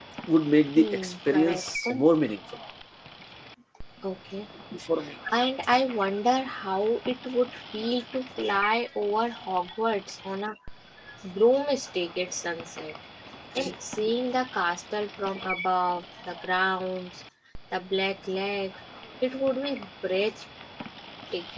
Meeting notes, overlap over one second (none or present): present